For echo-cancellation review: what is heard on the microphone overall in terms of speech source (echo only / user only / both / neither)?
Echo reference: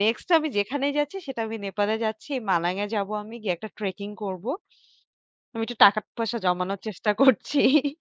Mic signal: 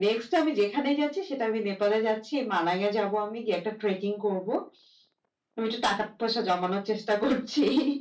echo only